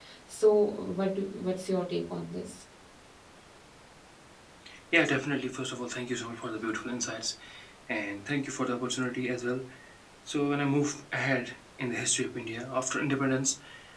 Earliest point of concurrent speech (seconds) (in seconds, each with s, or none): none